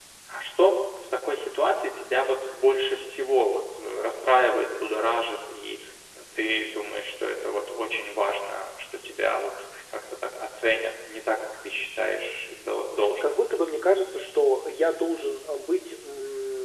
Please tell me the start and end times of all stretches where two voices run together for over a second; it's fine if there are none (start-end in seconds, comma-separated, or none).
none